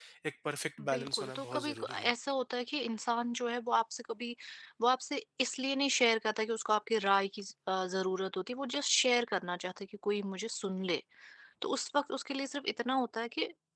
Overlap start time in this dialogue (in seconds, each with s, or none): 0.9 s